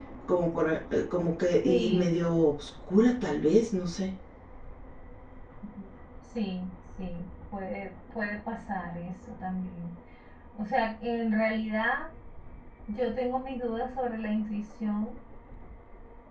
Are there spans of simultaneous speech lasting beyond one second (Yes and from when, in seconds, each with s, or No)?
No